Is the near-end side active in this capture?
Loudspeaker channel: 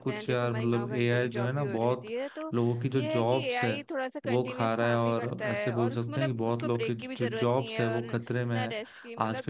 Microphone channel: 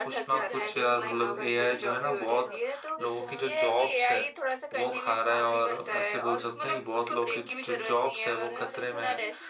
Yes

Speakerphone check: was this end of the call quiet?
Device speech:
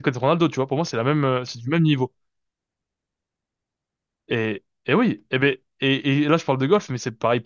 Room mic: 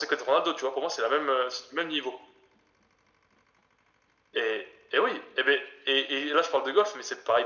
Yes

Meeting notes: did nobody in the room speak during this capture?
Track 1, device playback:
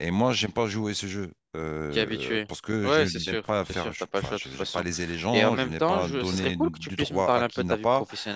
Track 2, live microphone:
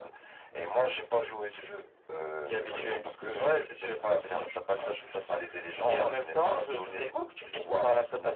No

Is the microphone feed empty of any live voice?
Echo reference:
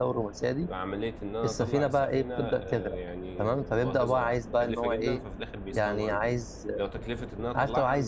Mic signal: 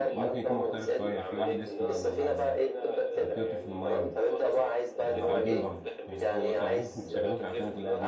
No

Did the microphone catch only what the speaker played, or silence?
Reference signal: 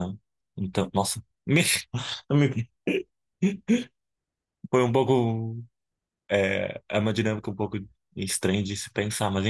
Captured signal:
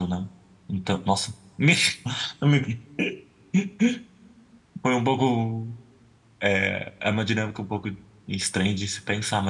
Yes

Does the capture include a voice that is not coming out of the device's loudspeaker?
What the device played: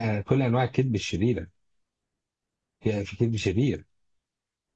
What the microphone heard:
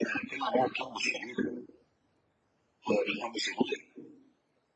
No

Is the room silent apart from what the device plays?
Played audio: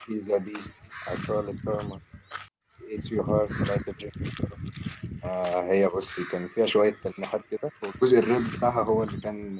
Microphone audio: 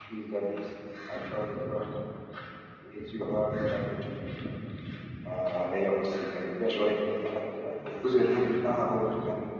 Yes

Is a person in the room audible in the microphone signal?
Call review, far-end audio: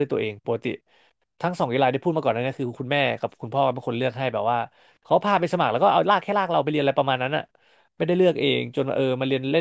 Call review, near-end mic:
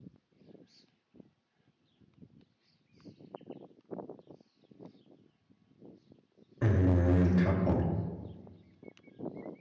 Yes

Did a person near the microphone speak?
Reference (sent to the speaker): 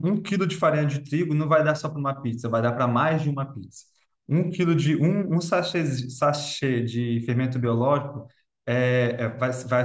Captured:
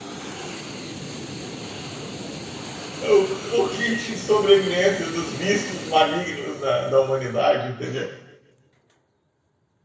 Yes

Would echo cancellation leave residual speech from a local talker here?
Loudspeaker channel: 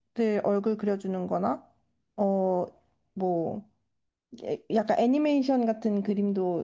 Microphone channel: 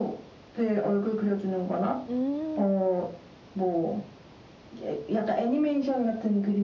Yes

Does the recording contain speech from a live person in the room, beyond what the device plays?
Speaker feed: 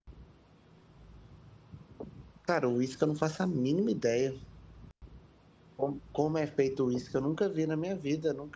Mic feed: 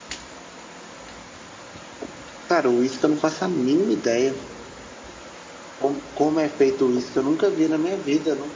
No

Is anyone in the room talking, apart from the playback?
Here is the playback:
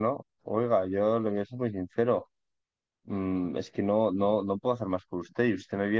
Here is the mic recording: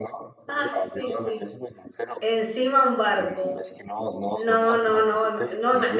Yes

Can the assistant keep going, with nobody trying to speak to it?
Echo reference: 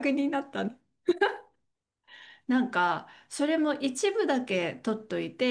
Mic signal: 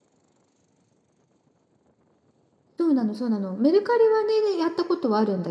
No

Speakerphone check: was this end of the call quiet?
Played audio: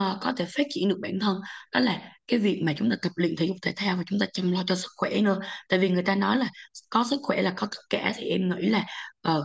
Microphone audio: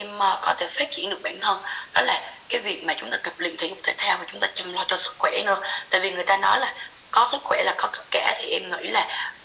Yes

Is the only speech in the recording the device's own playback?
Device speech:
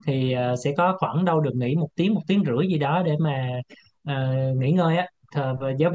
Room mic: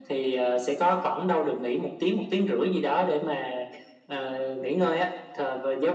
Yes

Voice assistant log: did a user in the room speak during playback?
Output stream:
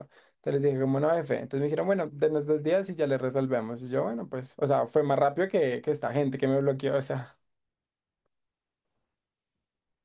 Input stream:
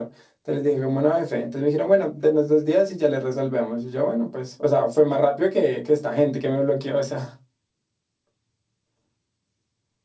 No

